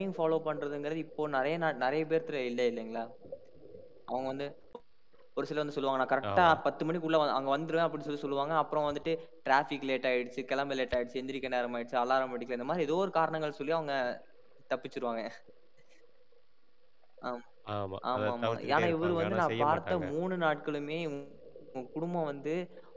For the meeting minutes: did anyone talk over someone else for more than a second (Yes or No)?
Yes